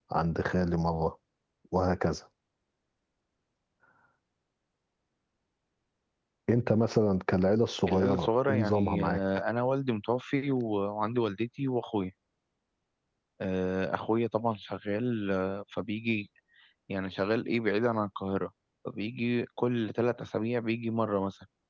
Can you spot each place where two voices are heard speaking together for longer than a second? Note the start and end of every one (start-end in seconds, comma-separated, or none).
7.9-9.2